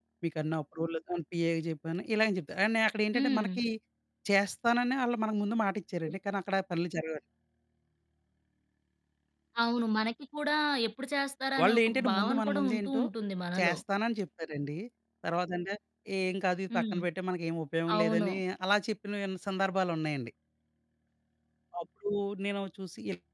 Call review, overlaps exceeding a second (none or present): present